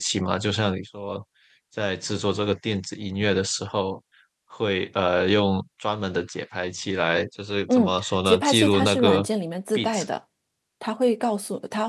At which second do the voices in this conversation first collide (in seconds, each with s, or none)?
7.7 s